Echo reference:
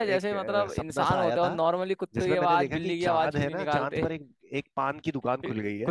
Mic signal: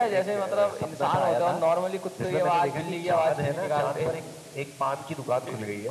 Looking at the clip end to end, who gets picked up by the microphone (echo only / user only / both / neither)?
echo only